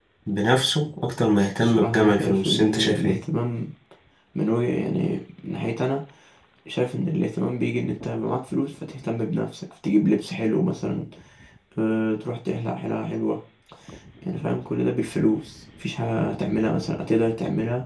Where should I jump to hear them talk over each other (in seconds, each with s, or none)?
1.6 s